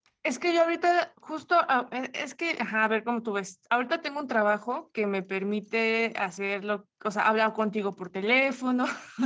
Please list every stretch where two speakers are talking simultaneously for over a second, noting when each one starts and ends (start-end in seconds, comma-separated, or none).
none